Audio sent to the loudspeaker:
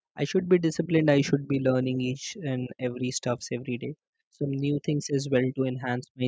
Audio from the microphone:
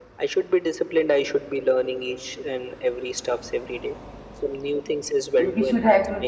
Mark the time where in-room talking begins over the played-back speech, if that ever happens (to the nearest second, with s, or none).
5 s